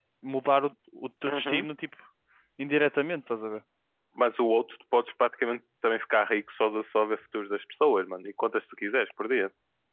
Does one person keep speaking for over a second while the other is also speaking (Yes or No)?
No